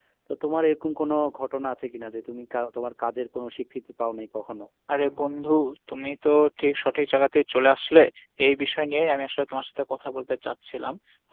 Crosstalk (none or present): none